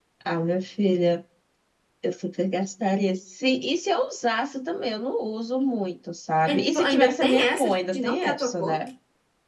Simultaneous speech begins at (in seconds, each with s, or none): 6.5 s